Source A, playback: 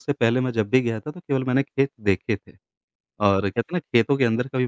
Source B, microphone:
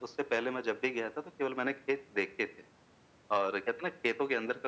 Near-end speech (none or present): none